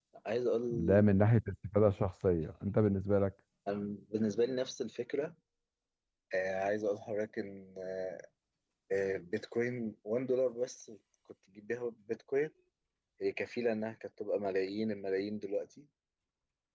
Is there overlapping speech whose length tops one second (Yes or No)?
No